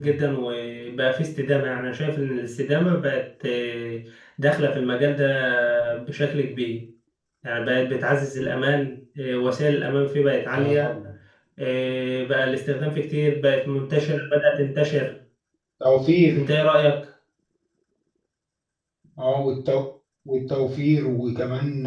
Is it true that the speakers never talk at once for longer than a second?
Yes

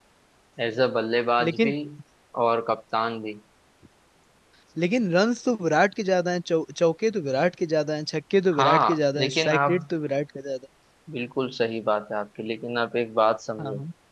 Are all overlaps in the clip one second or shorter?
No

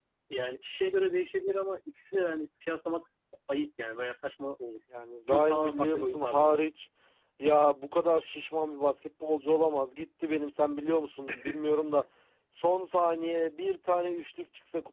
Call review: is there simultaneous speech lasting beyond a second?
Yes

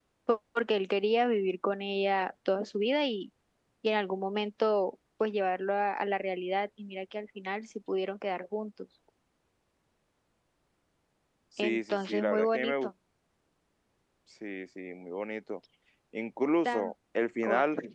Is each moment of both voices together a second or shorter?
No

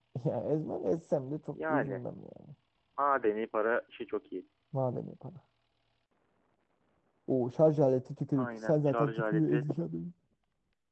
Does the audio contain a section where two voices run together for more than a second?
Yes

